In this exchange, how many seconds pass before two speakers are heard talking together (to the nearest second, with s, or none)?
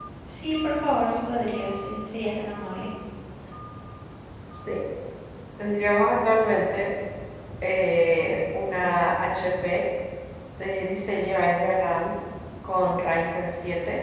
none